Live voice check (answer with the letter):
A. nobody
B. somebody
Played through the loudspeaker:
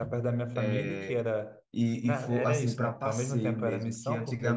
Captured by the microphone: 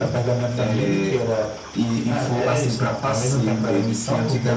A